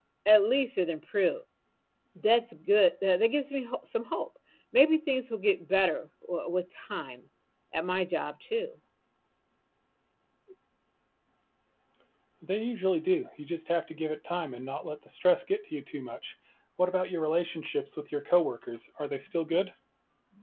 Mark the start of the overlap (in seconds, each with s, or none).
none